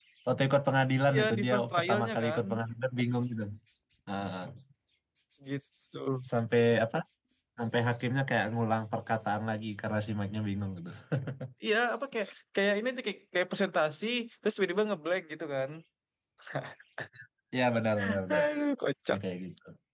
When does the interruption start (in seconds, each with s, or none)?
1.1 s